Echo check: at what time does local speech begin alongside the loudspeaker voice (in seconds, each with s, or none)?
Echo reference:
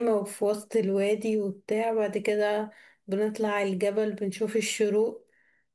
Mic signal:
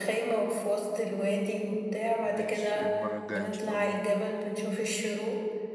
2.2 s